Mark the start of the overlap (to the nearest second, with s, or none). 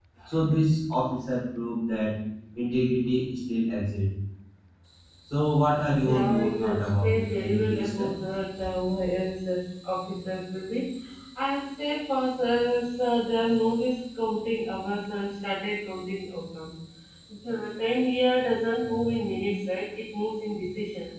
6 s